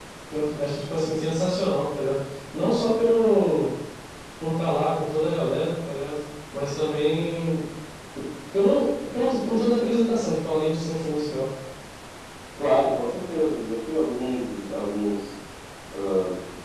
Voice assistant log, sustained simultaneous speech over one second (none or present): none